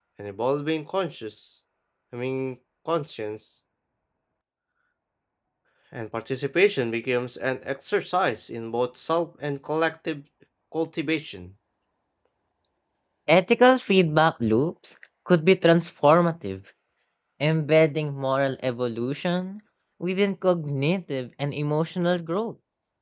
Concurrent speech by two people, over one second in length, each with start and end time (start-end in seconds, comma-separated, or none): none